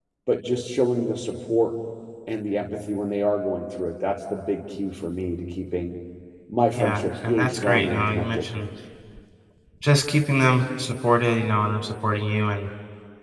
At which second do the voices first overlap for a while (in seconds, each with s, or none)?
6.7 s